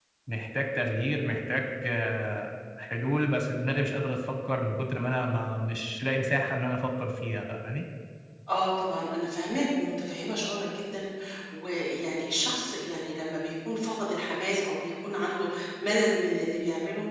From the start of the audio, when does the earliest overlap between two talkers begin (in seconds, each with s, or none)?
none